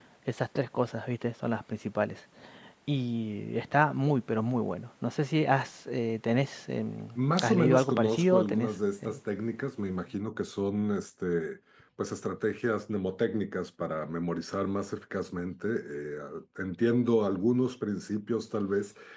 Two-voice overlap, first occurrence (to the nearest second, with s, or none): 7 s